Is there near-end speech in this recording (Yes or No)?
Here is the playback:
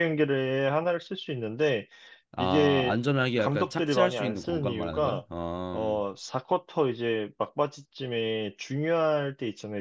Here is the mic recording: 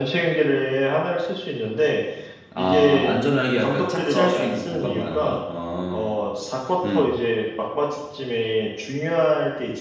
Yes